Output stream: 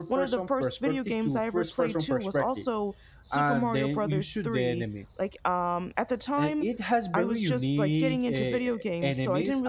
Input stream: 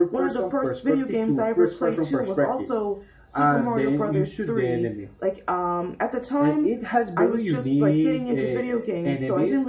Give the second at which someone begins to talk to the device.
none

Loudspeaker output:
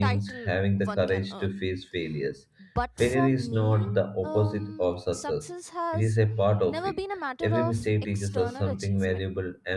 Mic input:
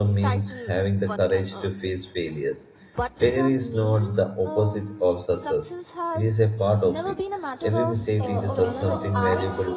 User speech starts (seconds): 8.2 s

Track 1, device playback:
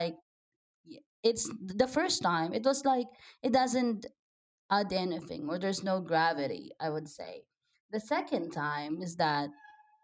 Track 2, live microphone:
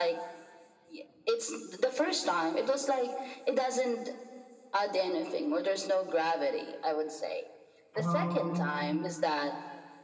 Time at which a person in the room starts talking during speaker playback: 8.0 s

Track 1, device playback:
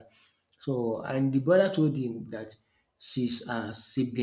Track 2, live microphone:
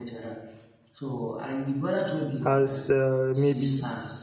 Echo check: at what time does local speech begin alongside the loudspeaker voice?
2.4 s

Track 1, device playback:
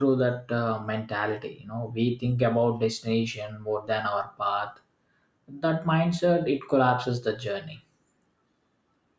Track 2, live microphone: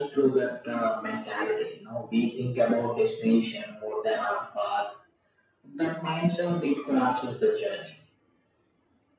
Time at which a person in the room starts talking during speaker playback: none

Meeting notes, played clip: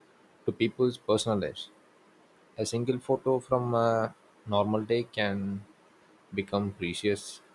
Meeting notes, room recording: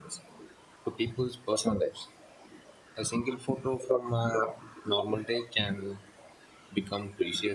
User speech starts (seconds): none

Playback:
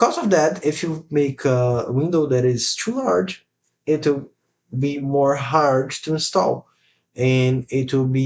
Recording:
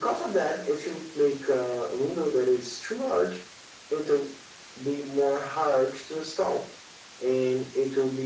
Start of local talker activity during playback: none

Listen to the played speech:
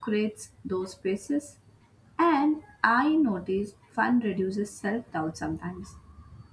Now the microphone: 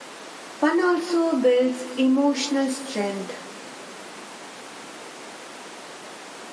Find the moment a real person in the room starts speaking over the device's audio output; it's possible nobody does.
0.5 s

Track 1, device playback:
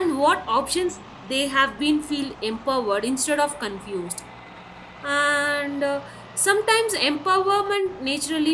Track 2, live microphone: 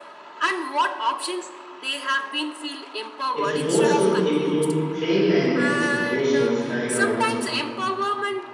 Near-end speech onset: 3.3 s

